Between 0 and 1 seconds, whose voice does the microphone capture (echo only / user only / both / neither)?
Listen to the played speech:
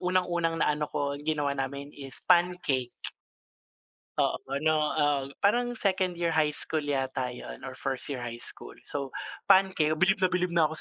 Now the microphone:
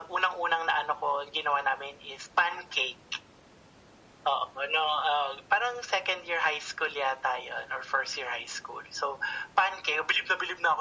echo only